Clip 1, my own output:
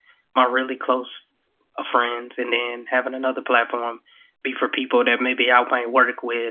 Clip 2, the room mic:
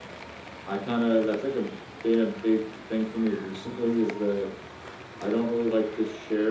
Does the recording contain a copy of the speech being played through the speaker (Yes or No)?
No